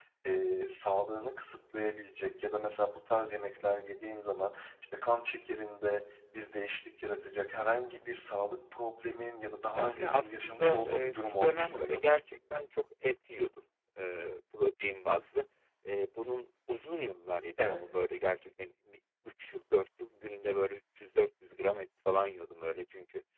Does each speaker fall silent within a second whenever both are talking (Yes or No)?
No